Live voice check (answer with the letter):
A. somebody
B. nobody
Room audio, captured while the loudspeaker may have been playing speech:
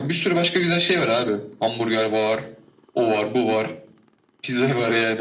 B